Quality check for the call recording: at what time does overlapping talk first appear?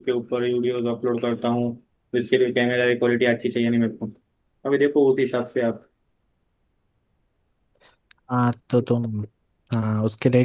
none

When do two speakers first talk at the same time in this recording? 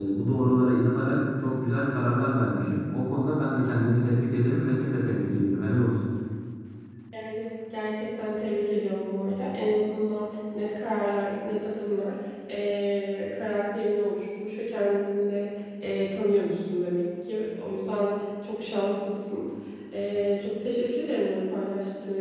none

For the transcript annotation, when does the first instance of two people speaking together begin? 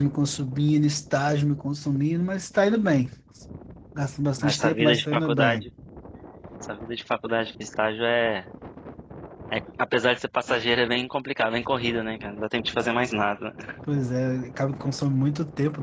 4.4 s

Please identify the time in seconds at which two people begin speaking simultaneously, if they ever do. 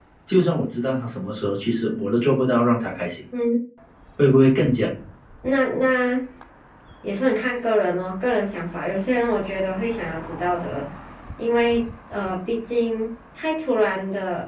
none

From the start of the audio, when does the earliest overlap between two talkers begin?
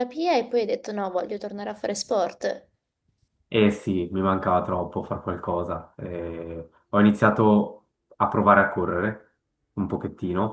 none

